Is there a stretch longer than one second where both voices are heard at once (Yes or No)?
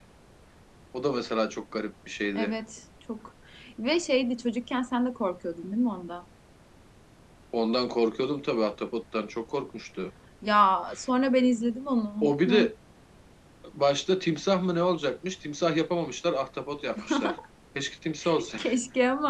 No